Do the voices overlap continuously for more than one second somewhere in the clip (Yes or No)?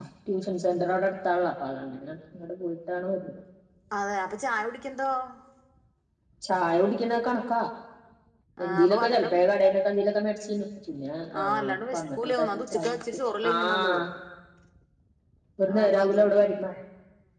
Yes